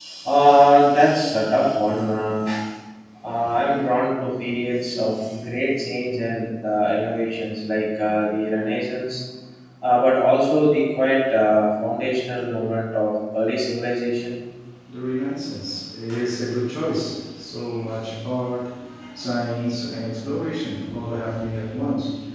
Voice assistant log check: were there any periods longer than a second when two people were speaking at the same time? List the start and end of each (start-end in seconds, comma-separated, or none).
none